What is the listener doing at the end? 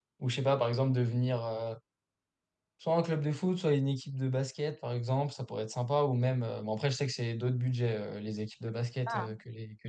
listening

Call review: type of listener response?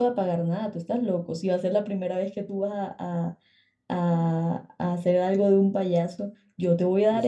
listening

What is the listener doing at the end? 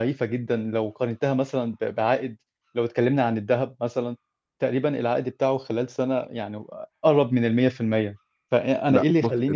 listening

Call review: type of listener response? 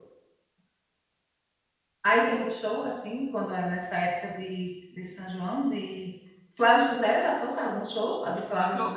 taking over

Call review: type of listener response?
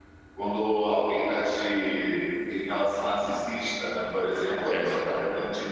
listening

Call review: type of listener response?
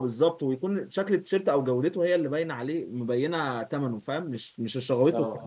taking over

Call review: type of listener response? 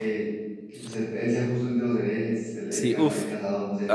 taking over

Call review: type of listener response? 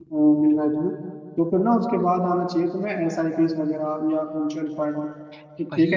taking over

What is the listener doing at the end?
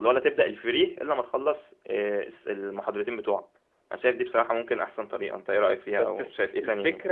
taking over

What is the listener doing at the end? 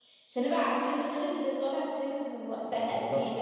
taking over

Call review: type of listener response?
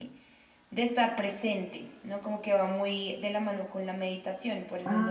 taking over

